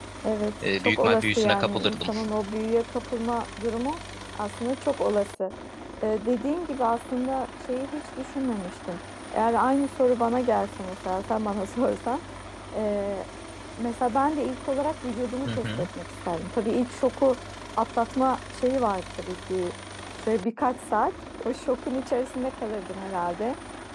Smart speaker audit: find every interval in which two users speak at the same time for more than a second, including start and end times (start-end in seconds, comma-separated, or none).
0.8-2.0